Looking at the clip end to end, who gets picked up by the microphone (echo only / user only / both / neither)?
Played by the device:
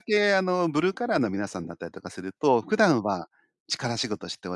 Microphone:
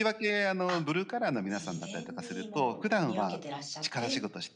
both